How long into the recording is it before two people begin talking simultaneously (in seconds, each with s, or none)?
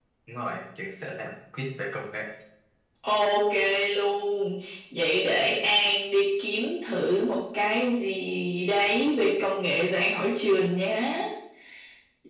none